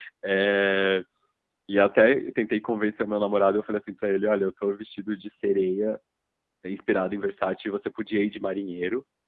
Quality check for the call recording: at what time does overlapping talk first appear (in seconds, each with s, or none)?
none